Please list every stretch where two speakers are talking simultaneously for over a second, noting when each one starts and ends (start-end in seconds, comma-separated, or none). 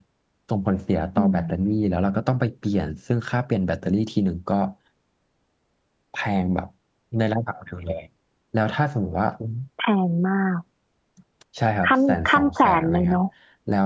11.9-13.2